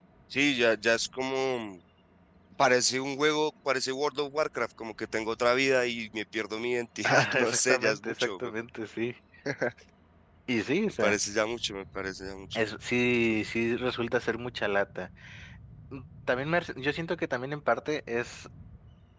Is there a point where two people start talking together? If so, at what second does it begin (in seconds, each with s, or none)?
7.0 s